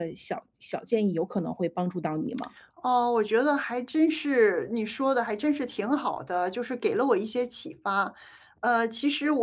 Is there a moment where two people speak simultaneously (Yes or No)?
No